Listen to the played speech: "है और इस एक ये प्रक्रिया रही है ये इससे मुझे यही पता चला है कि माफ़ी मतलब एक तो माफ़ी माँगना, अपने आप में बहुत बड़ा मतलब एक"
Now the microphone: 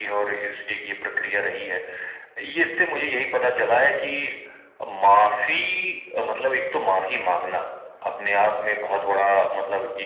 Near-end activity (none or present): none